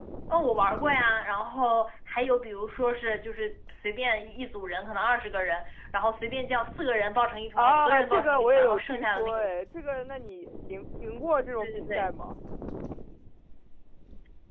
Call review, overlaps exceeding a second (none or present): present